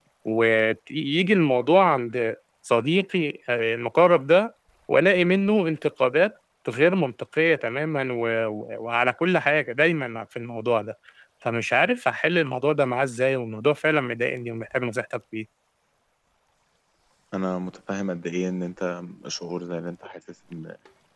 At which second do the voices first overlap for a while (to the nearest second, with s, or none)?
none